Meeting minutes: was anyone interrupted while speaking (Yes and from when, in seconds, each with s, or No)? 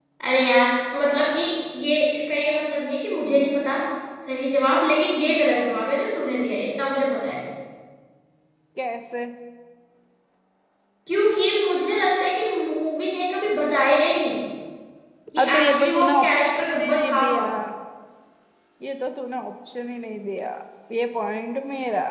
Yes, from 15.4 s